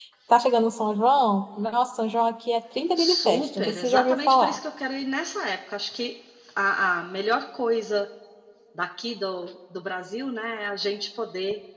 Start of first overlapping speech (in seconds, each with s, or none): 3.0 s